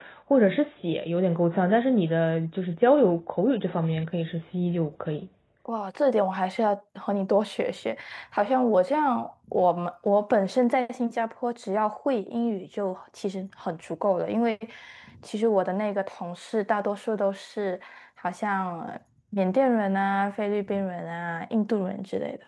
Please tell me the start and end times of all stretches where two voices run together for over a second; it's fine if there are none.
none

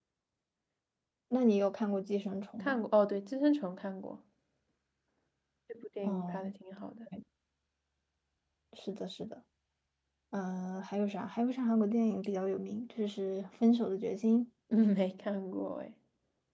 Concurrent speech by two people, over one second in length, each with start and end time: none

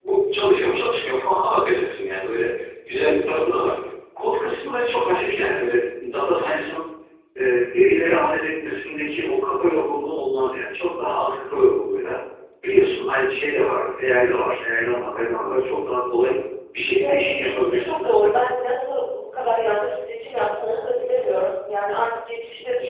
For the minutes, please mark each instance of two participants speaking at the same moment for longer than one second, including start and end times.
17.0-18.3

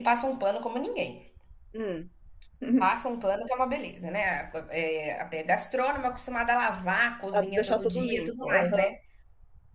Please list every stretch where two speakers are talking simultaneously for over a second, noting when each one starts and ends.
7.4-8.8

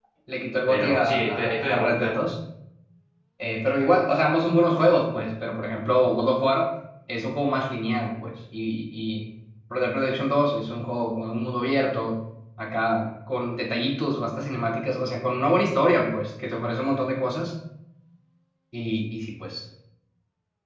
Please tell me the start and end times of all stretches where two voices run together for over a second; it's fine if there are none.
0.7-2.2

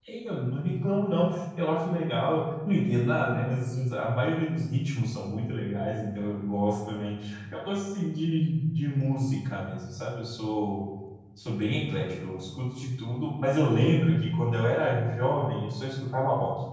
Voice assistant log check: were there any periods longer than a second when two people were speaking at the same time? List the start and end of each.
none

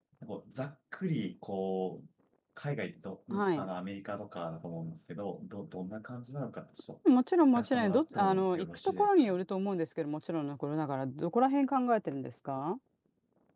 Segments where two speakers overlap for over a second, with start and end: 7.5-9.4

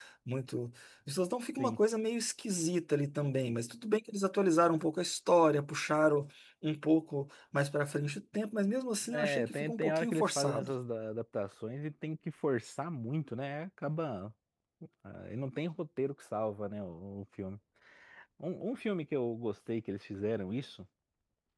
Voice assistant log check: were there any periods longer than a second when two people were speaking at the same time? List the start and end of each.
9.1-10.7

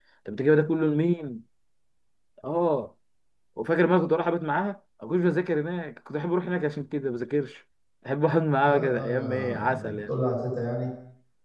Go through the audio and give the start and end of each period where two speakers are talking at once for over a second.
8.6-10.1

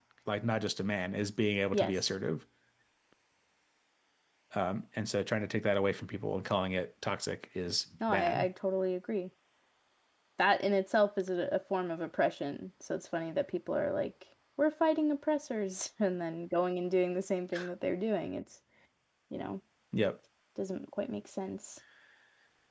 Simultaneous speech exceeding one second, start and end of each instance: none

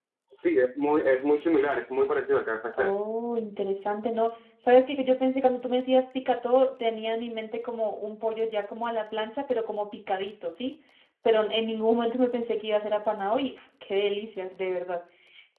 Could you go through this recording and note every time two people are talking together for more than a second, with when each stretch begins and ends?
none

